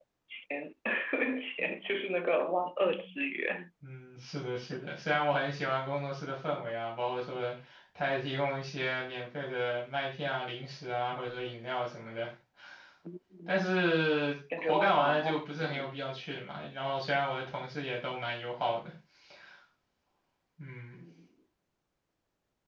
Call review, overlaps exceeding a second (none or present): present